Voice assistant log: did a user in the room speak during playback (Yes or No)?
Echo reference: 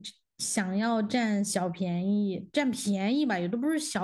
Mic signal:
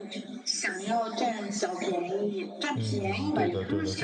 Yes